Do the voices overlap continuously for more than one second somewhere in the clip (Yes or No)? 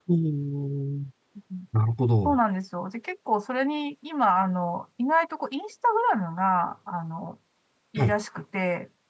No